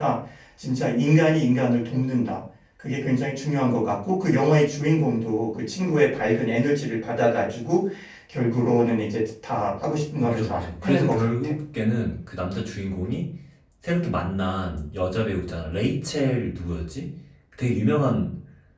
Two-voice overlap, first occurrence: 10.2 s

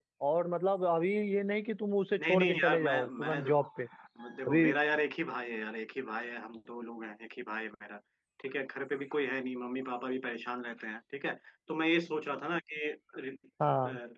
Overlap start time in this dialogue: 2.2 s

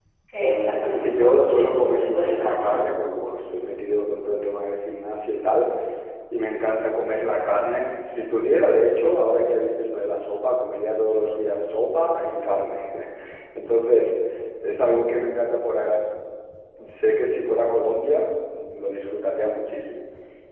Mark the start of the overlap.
0.8 s

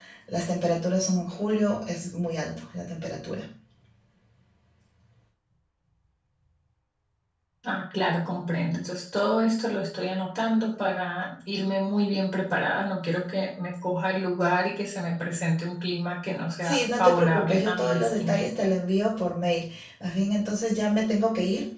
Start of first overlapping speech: 16.6 s

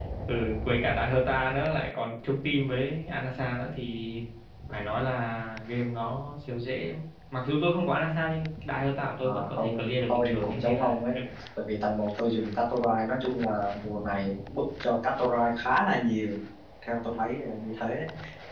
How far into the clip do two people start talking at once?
9.2 s

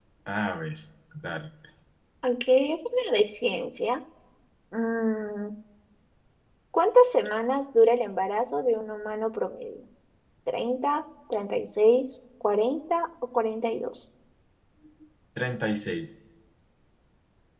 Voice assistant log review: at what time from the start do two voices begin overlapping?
none

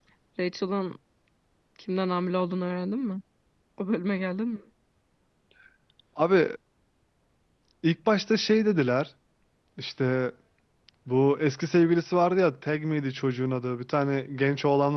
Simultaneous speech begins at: none

